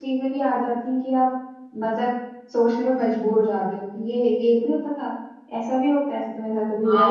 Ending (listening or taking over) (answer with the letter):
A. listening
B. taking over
B